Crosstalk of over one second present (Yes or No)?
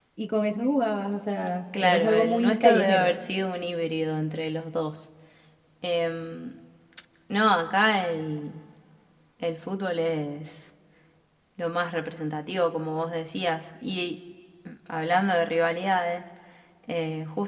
Yes